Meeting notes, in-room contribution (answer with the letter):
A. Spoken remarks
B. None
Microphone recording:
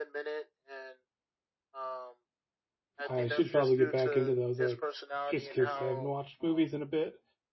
A